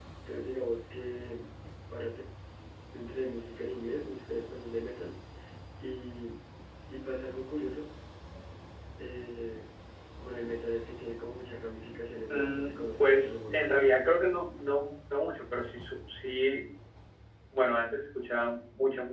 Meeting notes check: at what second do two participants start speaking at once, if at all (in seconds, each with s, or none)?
12.3 s